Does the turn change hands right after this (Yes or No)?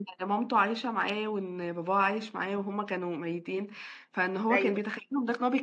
No